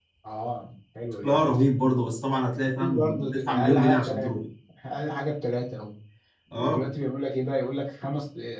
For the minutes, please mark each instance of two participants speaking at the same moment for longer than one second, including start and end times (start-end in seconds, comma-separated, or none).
2.5-4.3